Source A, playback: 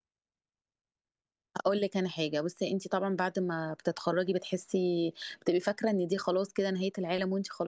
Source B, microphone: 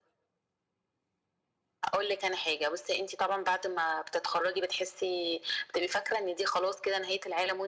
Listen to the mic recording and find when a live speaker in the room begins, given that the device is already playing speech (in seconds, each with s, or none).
none